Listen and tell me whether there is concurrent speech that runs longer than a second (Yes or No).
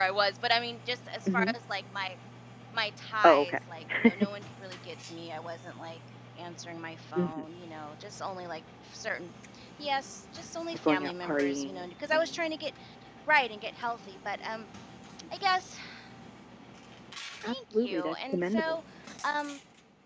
Yes